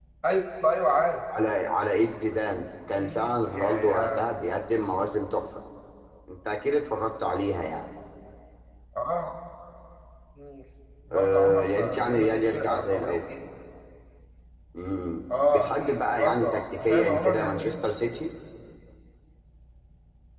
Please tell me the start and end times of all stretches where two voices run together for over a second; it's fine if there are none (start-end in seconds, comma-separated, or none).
3.0-4.3, 11.1-13.2, 15.5-17.7